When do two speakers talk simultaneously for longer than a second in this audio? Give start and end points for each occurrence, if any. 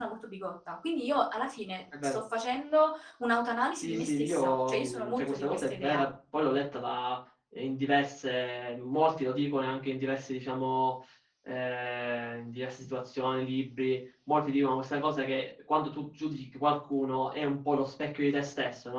3.8-6.0

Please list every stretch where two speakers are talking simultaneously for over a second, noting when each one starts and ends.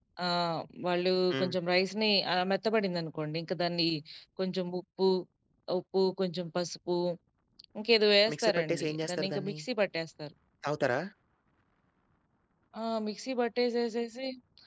8.3-9.6

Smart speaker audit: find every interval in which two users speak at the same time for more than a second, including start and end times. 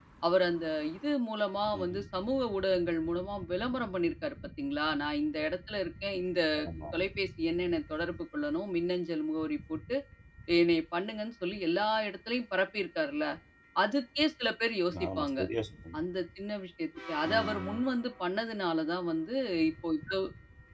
none

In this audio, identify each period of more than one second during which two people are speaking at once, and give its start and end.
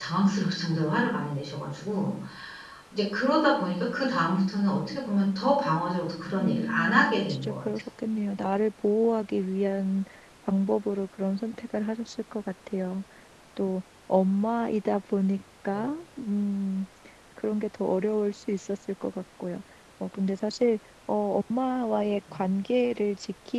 6.4-7.7

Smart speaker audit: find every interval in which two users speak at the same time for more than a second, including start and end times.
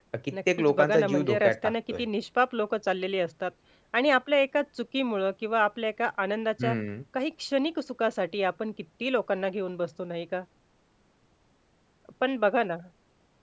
0.6-2.0

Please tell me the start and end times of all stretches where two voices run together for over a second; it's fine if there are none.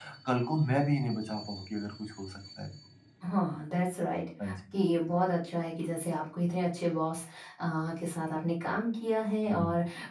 none

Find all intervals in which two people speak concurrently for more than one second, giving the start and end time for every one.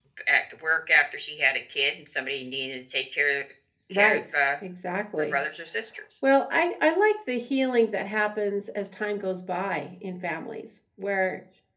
none

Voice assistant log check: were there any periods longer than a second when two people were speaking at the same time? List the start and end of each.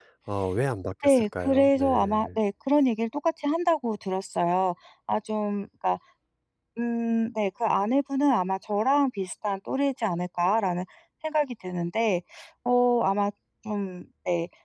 1.0-2.3

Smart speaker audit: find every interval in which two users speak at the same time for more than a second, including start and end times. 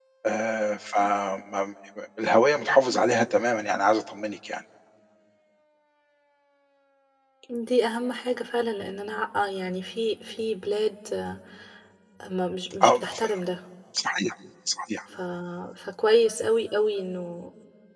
none

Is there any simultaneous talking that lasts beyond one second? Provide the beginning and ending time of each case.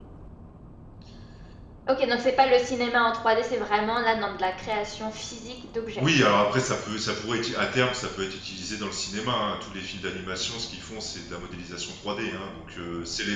none

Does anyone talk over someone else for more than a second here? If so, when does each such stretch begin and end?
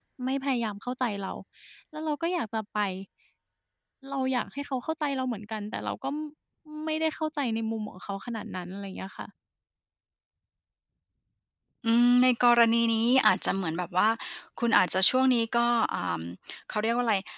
none

